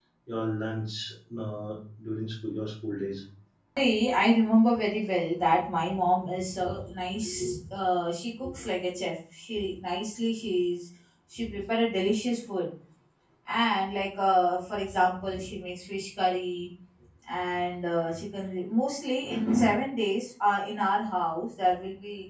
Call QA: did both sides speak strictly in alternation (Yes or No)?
Yes